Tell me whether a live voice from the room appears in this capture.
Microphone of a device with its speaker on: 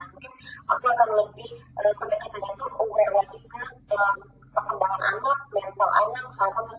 No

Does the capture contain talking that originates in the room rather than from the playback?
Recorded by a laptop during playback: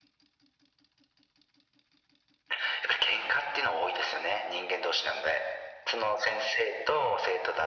No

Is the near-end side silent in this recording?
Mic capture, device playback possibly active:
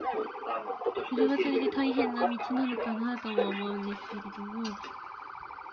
No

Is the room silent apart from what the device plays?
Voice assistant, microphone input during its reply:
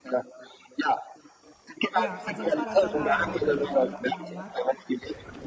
No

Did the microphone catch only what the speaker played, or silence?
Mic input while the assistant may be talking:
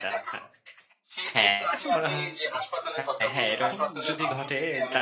No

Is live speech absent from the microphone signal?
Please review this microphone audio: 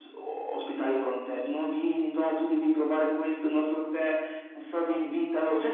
Yes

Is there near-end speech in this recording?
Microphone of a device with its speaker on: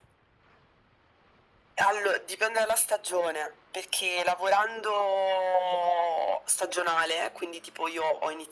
No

